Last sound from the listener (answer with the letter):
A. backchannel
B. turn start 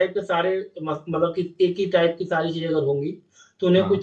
A